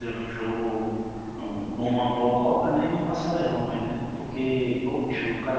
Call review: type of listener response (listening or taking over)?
listening